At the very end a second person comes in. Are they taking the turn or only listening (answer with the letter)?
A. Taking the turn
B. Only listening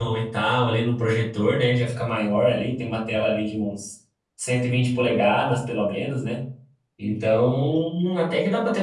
B